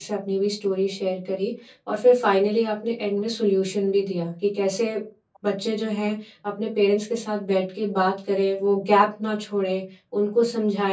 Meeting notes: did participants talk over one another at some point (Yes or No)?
No